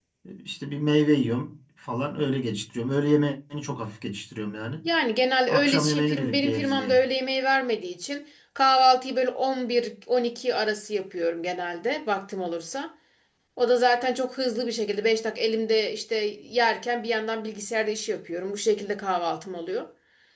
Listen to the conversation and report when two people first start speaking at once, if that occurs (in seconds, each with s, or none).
5.5 s